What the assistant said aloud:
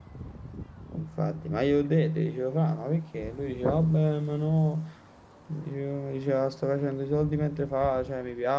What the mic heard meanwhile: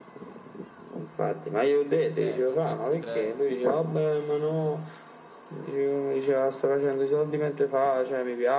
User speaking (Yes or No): Yes